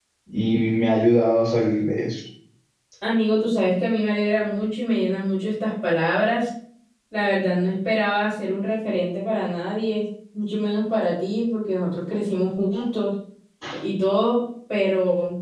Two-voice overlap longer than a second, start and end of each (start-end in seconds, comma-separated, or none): none